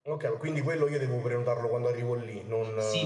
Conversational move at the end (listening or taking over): taking over